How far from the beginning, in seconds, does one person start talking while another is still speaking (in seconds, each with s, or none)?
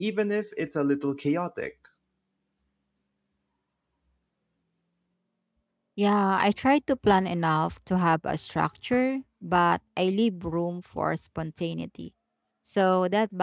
none